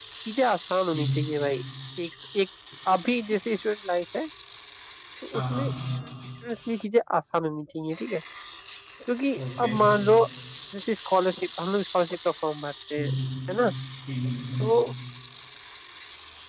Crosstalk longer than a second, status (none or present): none